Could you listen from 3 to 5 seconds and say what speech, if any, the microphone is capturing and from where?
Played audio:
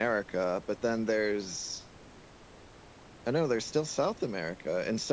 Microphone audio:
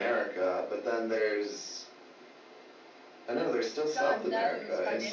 both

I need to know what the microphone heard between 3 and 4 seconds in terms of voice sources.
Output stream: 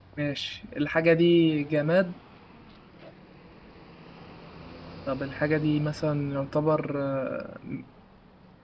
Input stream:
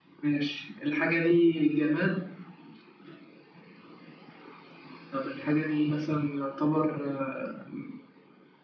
neither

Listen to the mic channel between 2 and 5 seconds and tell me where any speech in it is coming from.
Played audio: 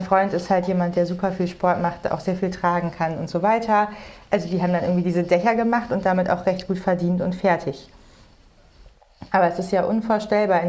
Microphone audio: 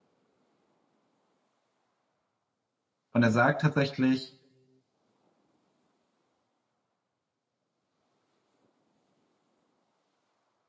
user only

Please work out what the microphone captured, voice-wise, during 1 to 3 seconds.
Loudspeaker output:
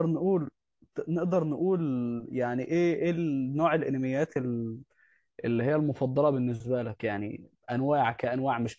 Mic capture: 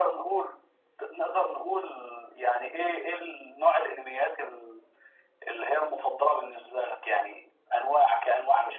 echo only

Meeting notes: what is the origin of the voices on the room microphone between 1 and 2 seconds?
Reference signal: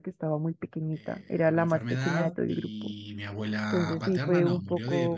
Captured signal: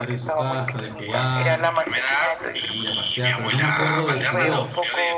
both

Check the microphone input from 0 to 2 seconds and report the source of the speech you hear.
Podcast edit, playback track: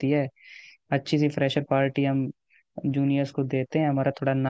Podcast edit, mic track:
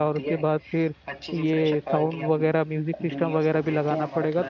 both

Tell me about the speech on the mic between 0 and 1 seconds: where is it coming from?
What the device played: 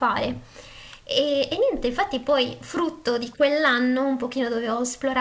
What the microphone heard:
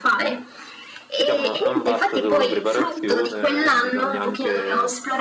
echo only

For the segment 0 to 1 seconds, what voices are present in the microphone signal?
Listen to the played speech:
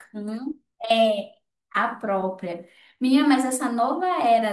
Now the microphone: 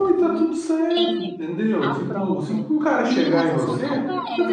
both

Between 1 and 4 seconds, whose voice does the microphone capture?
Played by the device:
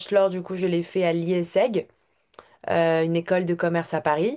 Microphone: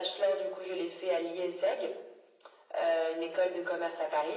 echo only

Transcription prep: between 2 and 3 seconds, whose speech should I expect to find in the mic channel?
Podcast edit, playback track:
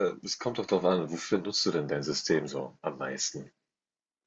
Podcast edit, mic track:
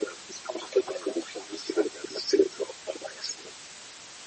echo only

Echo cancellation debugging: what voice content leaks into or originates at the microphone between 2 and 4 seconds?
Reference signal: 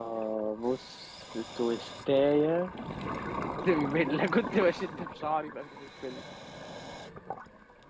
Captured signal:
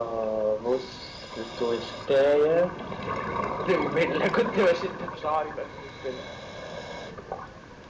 echo only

